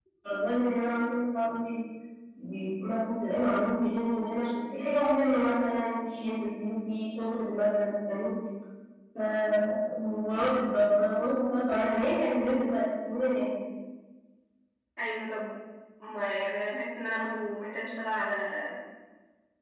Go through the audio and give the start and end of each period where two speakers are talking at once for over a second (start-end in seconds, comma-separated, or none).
none